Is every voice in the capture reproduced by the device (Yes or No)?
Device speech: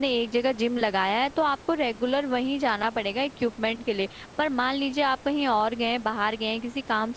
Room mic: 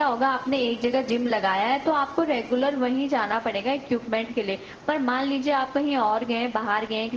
Yes